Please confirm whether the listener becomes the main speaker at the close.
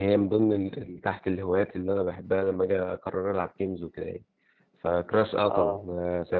No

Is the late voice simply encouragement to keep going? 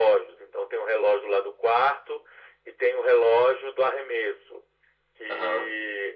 Yes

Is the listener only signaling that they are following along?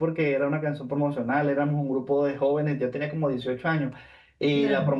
Yes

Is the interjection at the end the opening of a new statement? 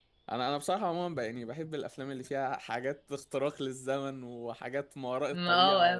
No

